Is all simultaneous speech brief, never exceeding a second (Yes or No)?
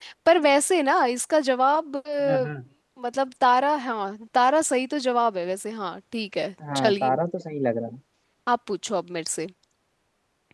Yes